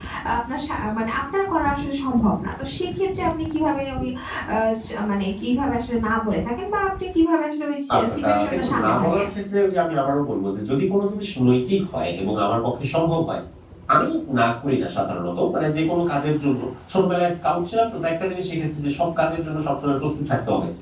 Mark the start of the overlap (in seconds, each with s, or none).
7.9 s